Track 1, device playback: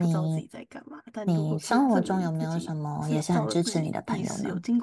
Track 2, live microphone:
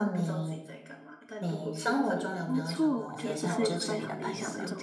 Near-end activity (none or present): present